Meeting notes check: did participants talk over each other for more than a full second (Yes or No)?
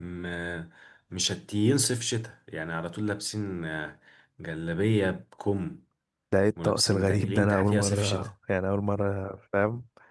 Yes